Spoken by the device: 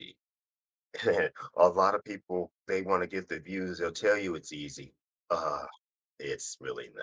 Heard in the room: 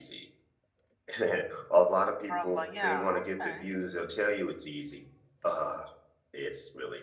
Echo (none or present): present